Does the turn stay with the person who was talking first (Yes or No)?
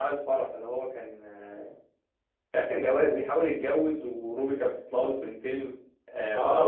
No